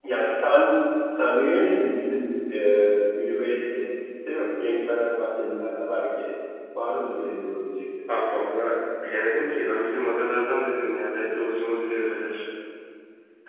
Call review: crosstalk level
none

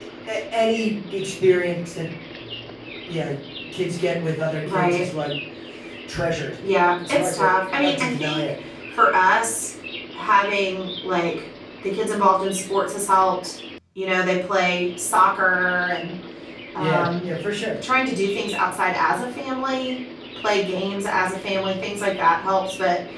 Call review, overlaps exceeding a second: present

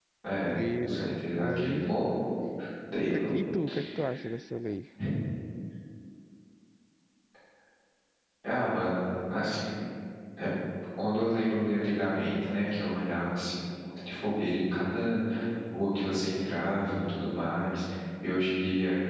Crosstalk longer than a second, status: present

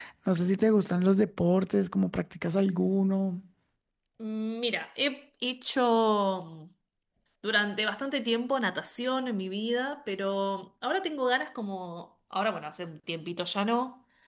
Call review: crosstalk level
none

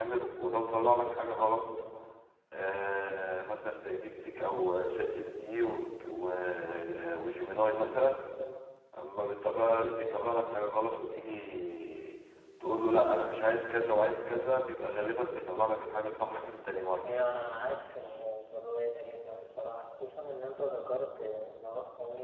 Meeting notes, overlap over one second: none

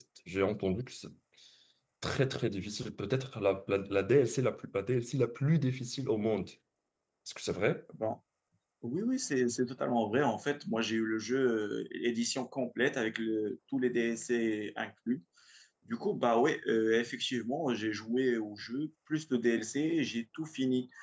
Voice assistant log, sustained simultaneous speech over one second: none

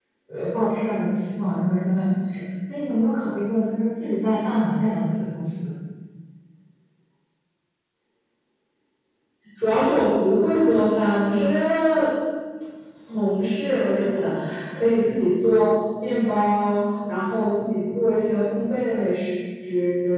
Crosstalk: none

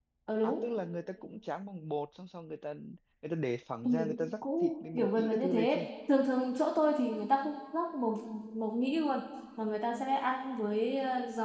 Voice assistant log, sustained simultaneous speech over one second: present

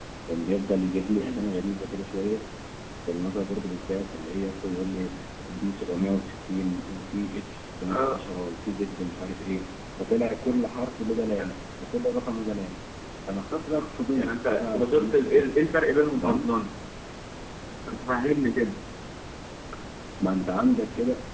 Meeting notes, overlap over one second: present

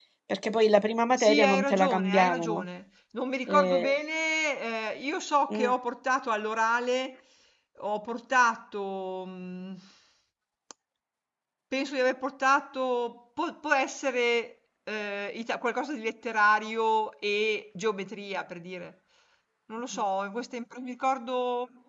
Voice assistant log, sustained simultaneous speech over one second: present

